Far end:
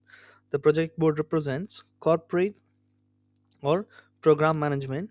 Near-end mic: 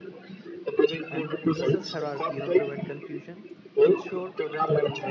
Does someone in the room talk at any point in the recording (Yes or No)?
Yes